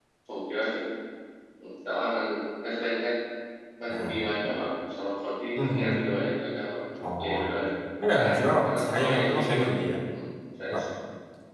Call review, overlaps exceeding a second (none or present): present